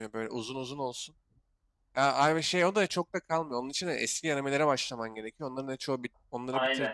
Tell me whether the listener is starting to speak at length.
No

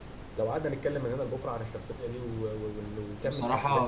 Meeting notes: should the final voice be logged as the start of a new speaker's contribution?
Yes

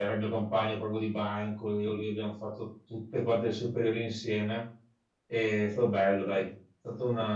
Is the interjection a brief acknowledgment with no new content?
Yes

